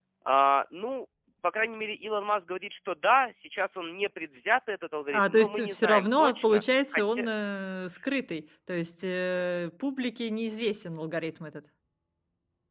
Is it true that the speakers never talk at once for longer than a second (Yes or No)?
No